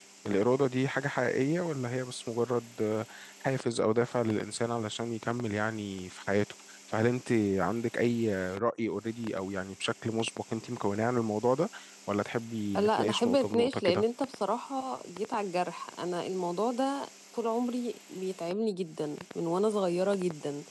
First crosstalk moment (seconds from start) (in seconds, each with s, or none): 12.8 s